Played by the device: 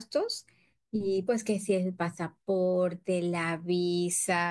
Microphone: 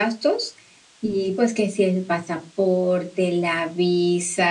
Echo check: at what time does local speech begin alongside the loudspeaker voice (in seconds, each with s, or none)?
none